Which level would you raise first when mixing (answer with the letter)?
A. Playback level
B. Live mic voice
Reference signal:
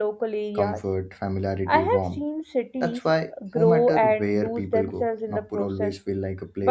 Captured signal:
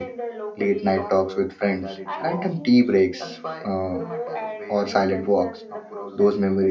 A